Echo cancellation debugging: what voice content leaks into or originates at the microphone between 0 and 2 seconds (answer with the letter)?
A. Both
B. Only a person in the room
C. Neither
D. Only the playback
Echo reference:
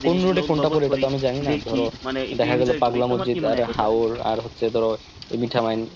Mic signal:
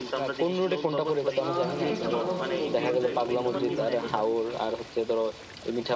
A